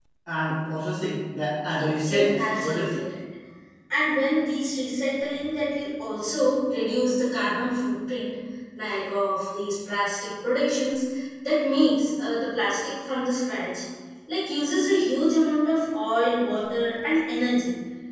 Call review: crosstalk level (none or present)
present